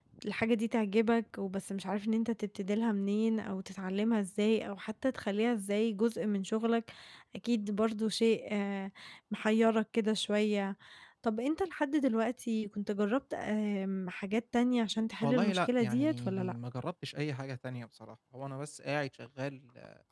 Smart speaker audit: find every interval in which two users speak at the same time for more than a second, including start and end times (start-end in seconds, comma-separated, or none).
15.2-16.5